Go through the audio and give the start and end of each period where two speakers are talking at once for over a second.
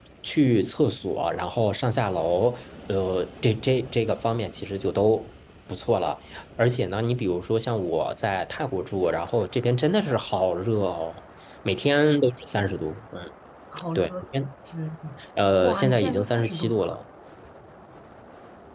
15.6-16.9

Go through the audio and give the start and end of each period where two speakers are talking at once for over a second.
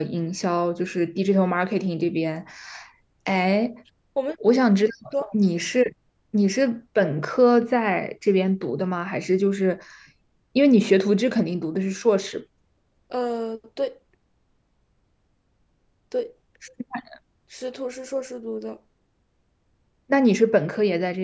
none

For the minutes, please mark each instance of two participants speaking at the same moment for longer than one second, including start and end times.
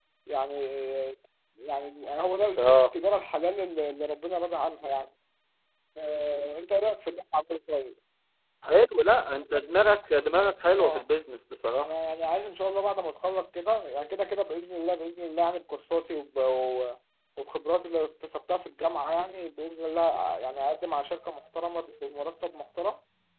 none

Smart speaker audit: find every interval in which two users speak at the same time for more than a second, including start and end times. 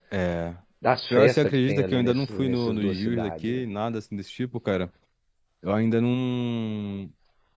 1.1-3.6

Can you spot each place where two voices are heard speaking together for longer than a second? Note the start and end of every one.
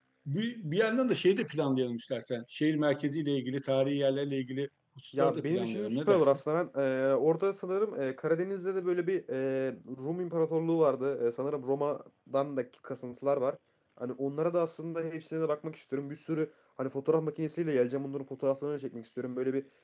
5.2-6.4

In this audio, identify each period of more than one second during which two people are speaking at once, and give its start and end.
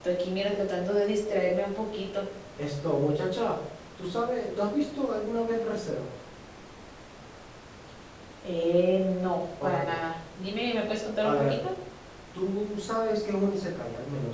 none

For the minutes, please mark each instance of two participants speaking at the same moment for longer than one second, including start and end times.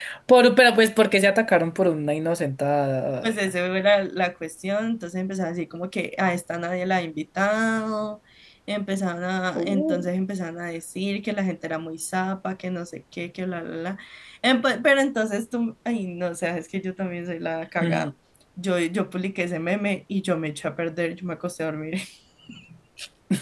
none

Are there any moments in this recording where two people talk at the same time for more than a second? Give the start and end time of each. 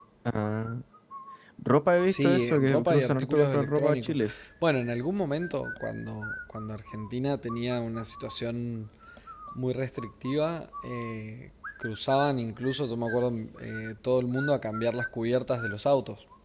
2.0-4.2

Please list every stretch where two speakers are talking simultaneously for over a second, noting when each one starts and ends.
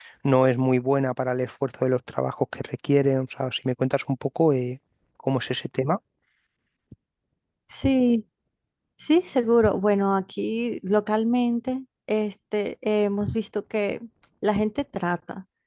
none

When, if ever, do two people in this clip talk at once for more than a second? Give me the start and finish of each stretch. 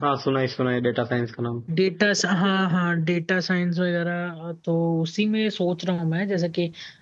none

